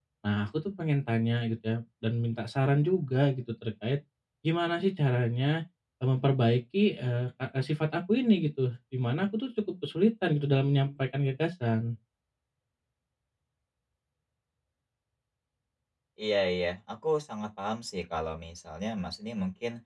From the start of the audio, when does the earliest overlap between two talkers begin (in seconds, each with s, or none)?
none